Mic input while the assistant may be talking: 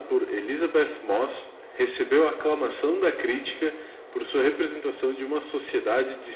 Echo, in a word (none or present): present